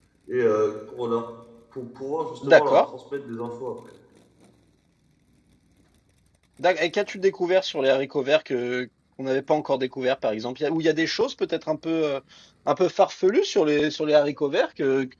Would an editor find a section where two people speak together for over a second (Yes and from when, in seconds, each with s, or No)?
No